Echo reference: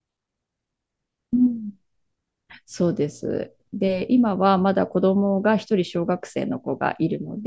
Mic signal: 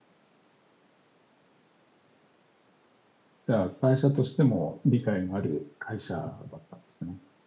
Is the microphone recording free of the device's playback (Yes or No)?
Yes